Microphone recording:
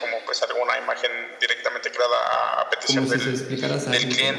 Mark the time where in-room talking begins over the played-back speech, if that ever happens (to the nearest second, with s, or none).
3 s